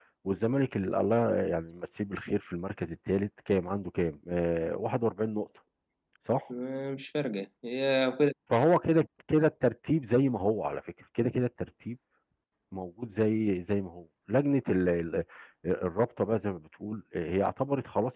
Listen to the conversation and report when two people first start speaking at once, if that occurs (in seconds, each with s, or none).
none